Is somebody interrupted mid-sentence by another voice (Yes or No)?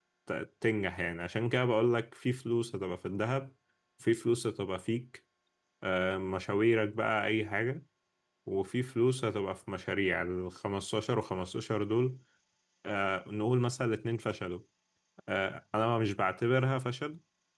No